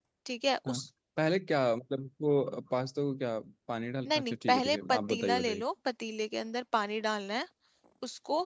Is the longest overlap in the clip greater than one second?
Yes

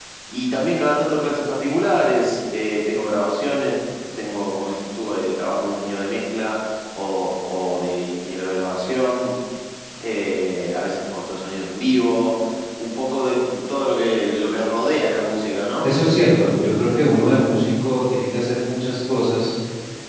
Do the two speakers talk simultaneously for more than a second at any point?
No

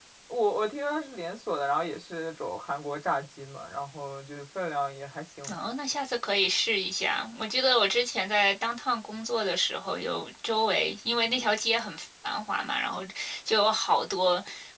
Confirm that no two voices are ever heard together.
Yes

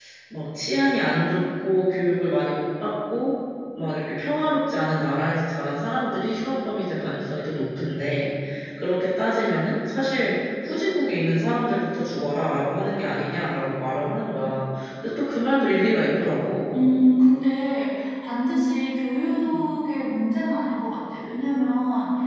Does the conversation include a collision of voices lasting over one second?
No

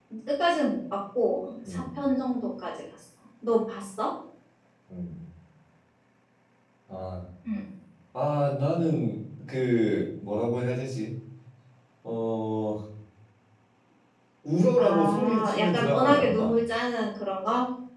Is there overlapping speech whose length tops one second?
Yes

